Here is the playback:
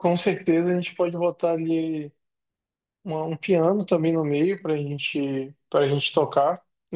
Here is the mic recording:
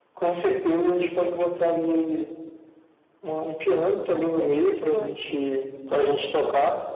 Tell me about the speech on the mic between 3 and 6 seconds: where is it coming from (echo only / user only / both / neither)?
both